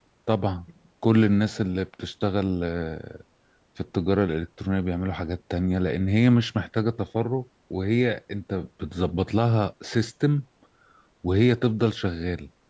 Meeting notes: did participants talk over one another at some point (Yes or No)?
No